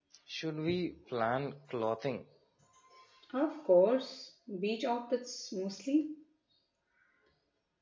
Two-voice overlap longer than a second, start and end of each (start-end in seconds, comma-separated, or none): none